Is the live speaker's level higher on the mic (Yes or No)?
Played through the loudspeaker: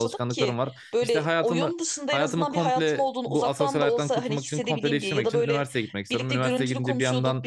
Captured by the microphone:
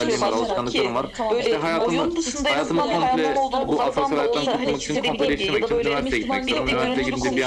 No